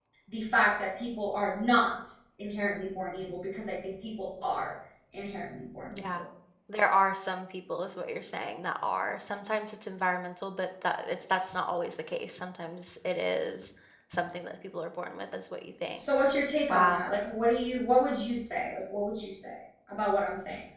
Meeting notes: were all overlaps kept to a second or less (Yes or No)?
Yes